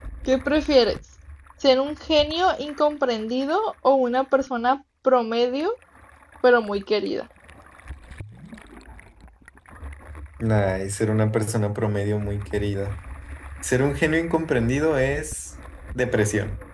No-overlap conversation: Yes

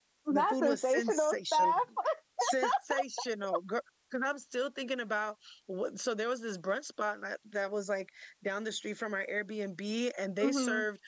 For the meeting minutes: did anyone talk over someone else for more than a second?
Yes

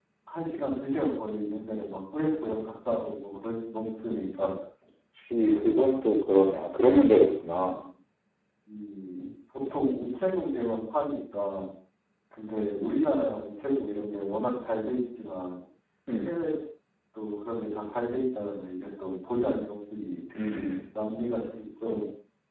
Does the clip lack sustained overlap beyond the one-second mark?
Yes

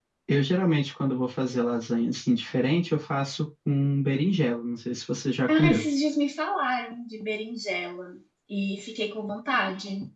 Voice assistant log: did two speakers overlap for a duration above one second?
No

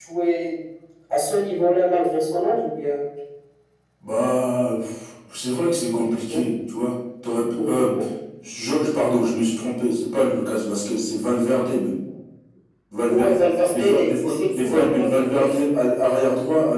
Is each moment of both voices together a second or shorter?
No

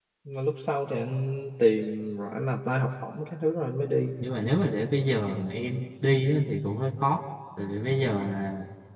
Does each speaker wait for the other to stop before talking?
Yes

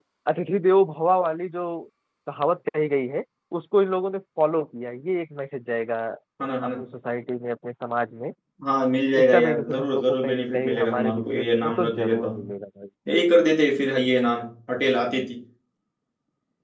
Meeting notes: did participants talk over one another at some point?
Yes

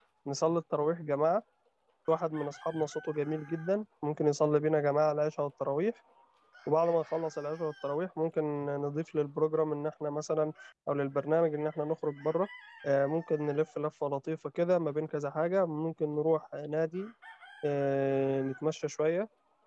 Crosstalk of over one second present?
No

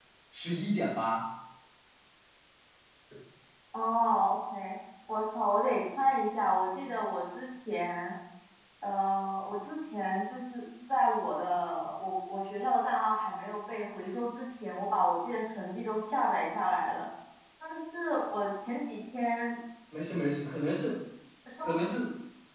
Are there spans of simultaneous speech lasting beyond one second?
No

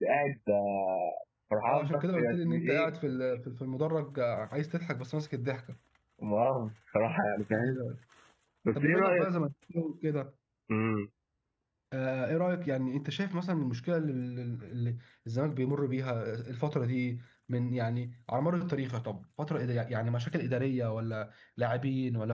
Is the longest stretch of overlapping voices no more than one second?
No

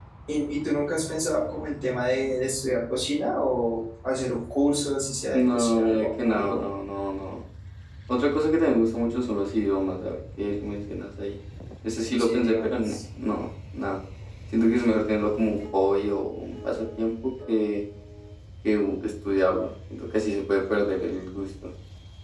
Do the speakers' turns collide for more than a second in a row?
Yes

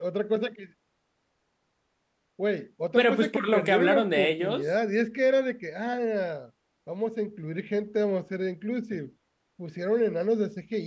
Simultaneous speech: Yes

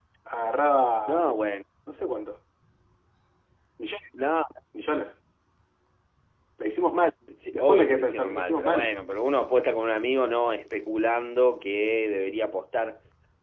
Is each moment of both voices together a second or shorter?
No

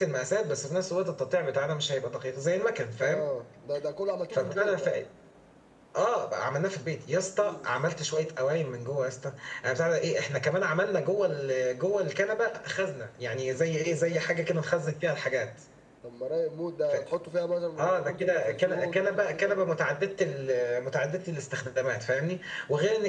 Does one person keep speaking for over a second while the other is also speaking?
Yes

